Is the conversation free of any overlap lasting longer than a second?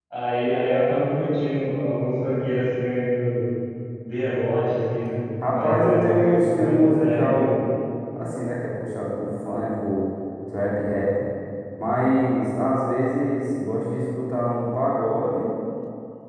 No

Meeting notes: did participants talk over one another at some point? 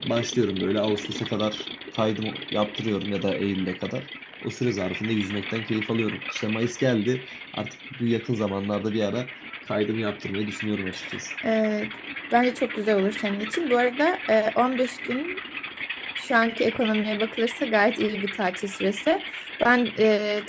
No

